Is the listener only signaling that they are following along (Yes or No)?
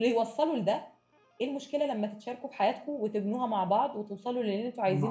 No